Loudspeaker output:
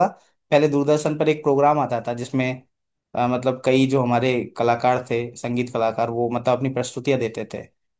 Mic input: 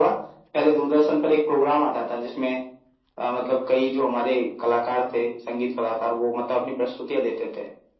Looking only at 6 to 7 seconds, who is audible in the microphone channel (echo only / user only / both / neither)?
echo only